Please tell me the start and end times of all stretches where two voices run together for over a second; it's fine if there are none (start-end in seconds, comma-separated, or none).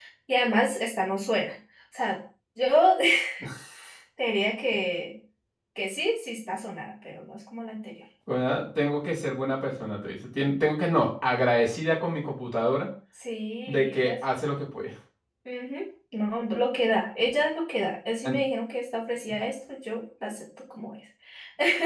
none